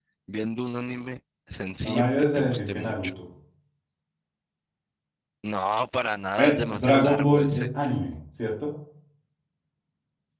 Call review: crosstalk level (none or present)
present